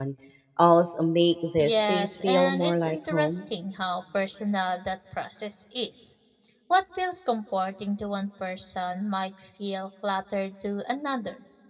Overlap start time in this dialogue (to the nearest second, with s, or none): 2 s